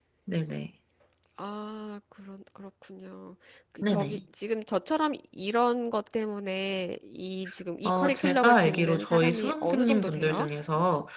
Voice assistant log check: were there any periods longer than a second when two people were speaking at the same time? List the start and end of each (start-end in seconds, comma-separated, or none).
7.8-10.5